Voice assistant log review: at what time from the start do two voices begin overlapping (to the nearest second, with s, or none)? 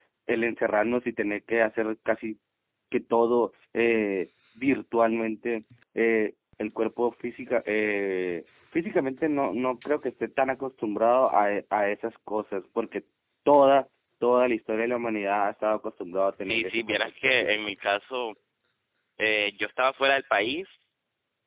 16 s